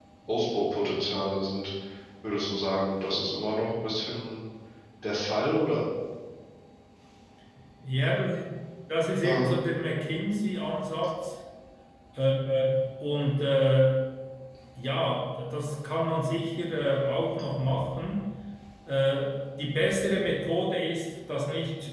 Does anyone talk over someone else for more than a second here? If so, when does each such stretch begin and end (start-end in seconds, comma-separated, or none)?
none